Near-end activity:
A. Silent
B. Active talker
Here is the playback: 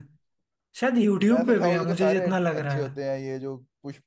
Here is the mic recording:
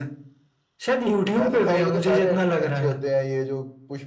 A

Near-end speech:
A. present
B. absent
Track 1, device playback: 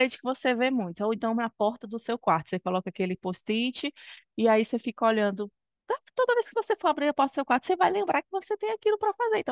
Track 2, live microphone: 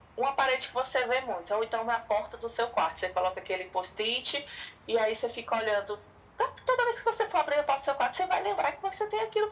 B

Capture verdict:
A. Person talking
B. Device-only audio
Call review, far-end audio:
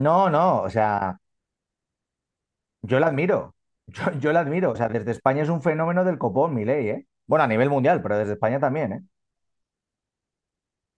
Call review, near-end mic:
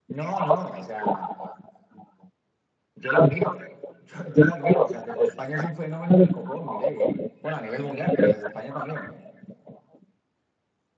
B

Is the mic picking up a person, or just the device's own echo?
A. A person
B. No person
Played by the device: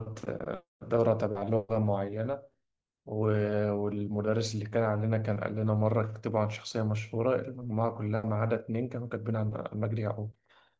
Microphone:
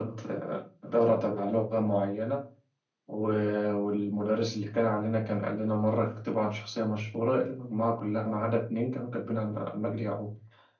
B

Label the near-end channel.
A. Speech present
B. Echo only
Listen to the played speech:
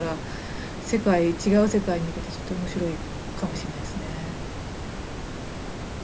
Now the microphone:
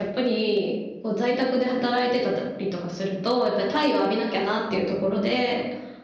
A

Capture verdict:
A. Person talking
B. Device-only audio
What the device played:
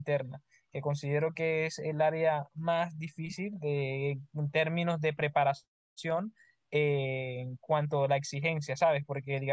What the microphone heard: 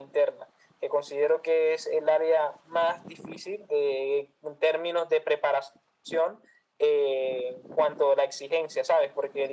B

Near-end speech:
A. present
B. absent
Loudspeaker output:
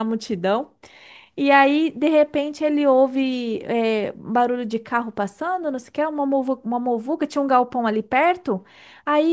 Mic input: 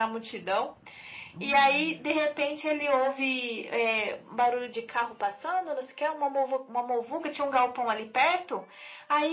A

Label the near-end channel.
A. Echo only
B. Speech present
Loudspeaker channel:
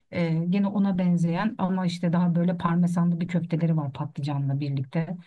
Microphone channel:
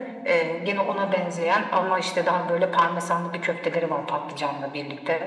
A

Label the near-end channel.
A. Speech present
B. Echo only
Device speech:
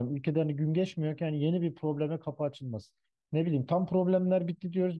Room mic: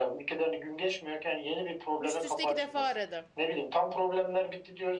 A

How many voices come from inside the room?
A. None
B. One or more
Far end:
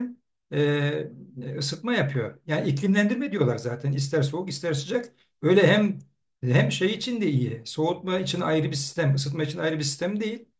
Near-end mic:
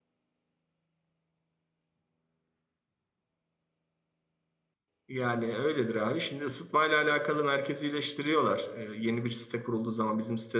B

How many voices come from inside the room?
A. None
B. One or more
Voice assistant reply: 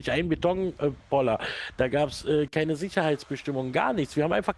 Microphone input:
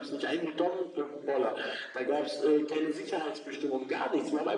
A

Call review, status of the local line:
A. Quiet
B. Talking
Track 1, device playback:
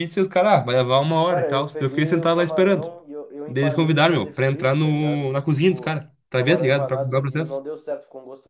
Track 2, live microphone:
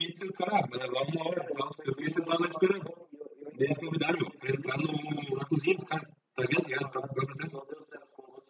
A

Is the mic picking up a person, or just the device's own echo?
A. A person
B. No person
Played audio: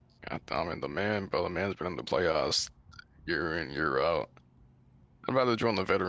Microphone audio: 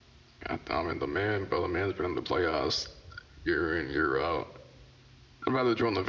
B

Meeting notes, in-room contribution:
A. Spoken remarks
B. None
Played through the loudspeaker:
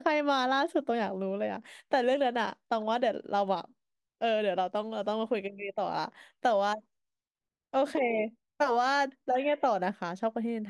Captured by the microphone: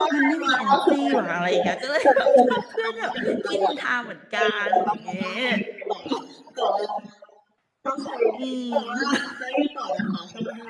A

